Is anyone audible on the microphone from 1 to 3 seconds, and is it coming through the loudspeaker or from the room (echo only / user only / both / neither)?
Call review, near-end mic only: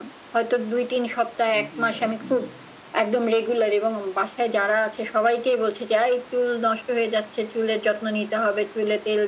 both